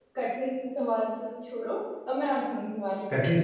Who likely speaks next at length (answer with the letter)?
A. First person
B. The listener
B